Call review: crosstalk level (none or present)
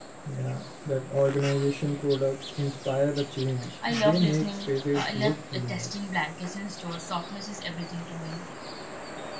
present